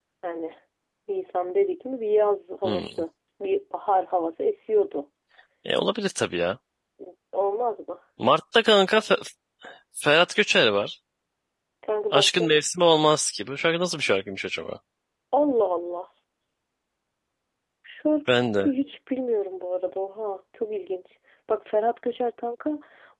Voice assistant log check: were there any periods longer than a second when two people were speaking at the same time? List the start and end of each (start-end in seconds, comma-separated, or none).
none